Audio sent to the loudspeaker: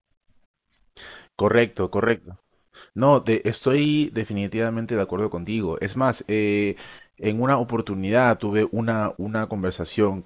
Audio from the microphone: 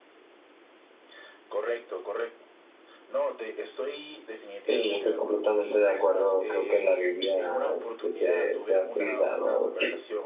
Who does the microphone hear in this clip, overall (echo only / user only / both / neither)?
both